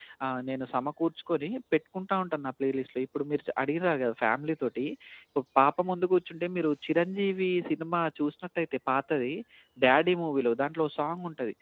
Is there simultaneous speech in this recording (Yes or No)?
No